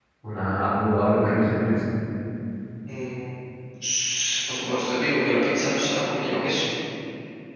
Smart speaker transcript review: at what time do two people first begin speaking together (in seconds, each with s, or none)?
none